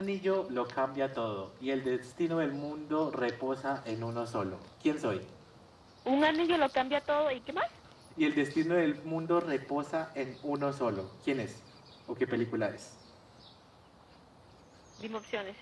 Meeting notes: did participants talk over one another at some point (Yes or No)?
No